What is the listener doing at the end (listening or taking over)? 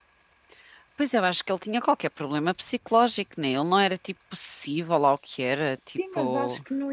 taking over